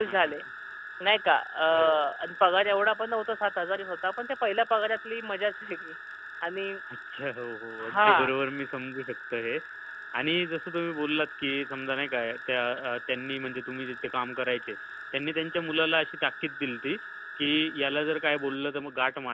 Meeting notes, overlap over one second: none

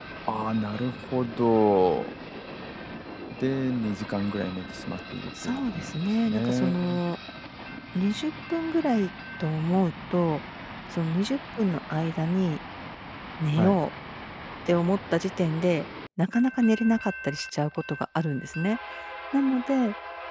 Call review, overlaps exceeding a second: present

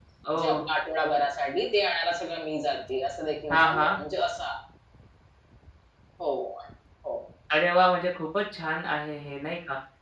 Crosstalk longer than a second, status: none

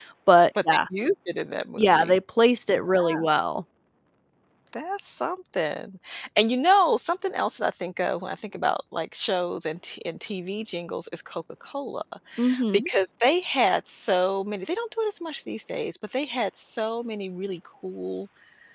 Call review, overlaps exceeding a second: none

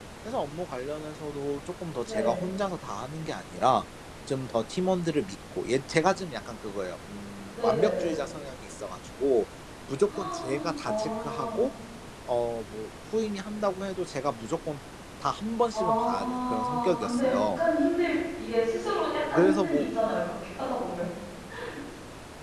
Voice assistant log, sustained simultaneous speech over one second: present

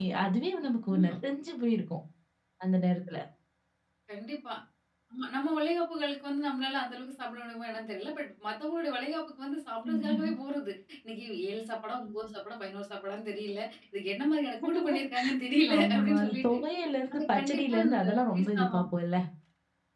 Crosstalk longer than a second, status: present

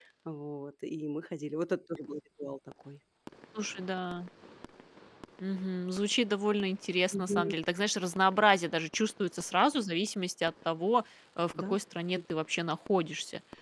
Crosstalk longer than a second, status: none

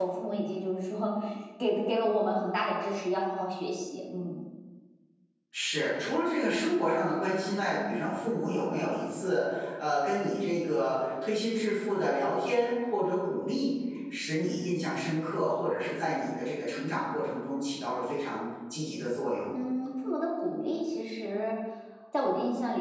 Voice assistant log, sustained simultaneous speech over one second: none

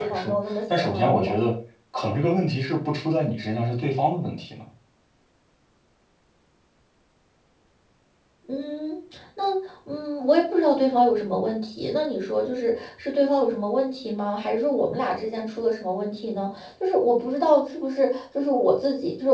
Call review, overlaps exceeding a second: present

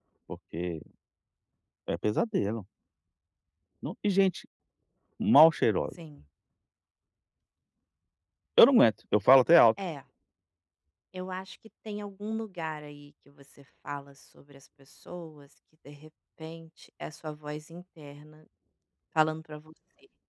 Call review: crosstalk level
none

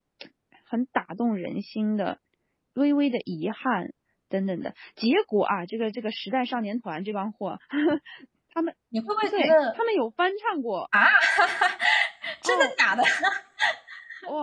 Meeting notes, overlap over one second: none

